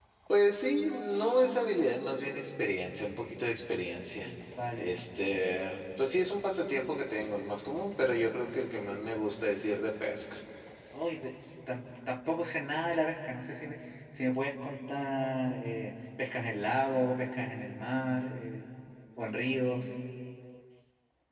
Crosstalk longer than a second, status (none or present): none